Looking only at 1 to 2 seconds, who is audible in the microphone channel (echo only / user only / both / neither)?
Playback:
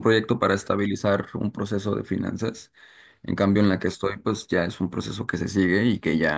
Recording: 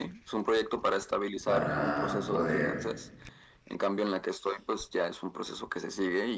both